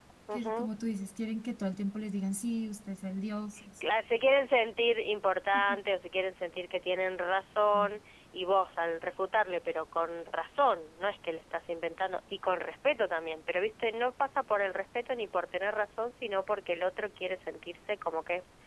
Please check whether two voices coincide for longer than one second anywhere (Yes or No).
No